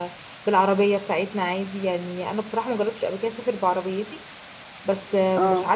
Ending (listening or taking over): listening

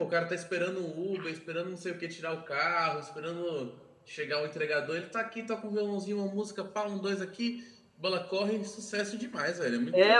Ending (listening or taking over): taking over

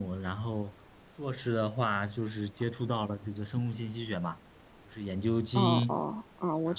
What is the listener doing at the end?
taking over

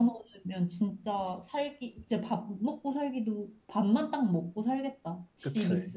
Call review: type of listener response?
taking over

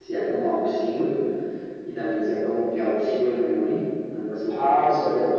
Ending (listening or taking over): taking over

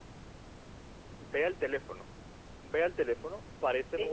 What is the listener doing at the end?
listening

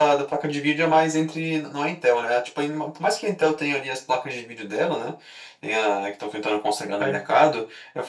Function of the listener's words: listening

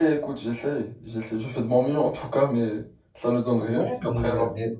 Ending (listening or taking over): taking over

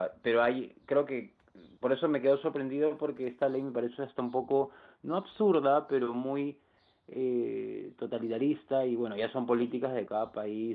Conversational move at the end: listening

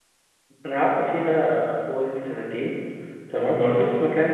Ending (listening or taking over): listening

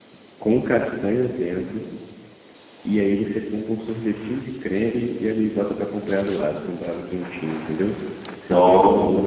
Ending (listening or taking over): listening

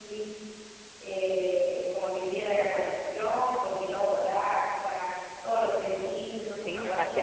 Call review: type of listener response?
taking over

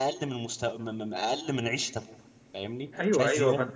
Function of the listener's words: taking over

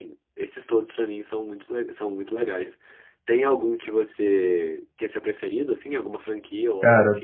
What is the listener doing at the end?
taking over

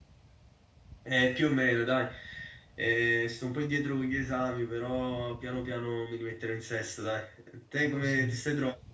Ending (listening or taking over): listening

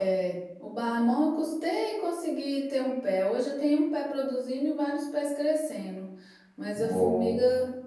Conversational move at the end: listening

